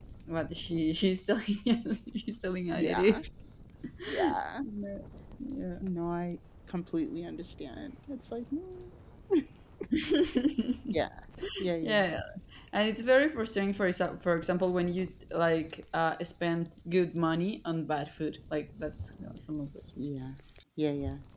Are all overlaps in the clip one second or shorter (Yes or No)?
Yes